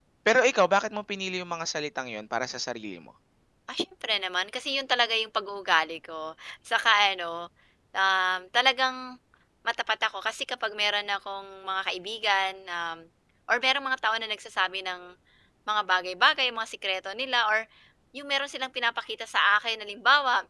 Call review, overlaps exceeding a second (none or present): none